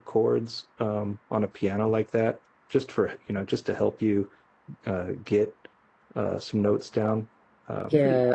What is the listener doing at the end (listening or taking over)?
taking over